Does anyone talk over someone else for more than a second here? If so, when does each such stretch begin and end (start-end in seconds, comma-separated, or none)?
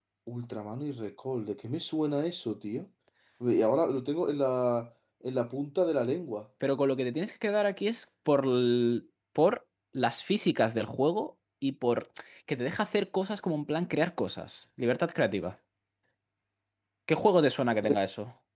none